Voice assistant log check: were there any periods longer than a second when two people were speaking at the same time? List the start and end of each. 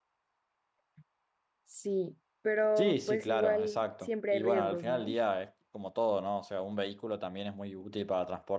2.8-5.1

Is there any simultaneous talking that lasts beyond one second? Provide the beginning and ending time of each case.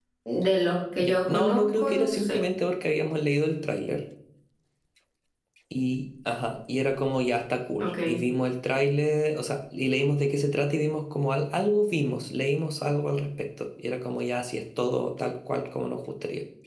1.0-2.4

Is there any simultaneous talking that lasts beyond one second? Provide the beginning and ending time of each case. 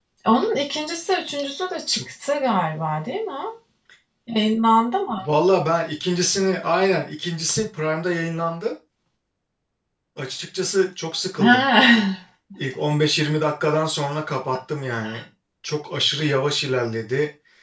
none

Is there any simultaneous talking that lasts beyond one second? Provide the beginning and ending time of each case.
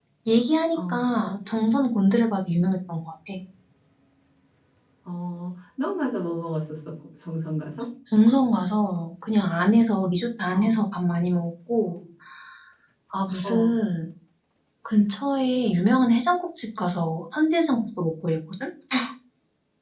none

